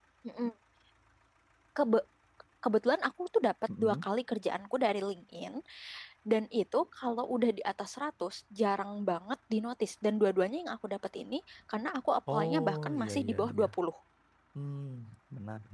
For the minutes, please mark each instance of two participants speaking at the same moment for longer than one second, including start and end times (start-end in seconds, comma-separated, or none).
12.3-13.7